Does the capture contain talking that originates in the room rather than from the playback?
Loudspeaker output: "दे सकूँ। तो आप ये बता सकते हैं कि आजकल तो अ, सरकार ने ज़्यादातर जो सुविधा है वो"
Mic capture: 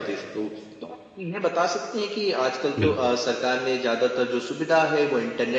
Yes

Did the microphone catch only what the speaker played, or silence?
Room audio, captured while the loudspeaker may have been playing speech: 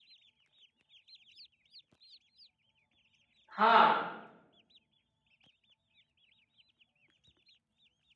No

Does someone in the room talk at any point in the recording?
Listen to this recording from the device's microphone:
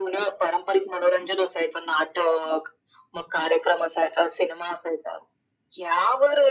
No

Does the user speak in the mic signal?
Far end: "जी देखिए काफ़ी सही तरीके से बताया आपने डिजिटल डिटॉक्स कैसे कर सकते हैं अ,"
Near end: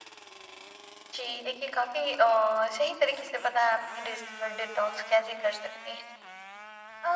No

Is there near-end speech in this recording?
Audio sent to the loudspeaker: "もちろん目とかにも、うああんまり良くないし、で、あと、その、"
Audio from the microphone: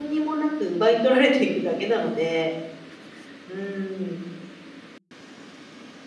Yes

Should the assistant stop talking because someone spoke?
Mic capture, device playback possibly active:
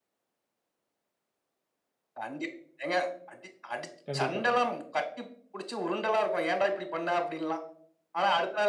Yes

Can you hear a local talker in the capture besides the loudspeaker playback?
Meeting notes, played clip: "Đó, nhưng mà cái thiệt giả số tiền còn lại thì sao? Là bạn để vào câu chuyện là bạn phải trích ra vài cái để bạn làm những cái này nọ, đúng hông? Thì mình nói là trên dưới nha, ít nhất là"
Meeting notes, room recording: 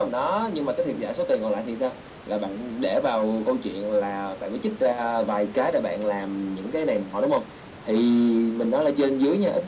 No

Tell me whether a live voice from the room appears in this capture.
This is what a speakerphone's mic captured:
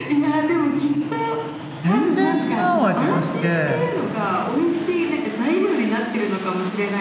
Yes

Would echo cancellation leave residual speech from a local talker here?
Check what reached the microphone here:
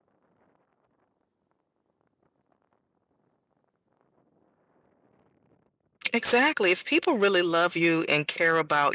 Yes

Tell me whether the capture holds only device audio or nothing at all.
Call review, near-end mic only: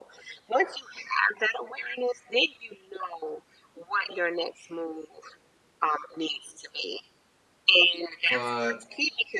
No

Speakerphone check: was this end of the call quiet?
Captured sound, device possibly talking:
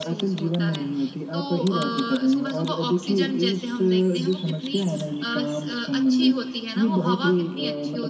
Yes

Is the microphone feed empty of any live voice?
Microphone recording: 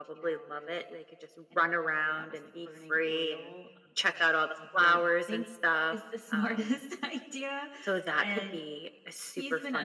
No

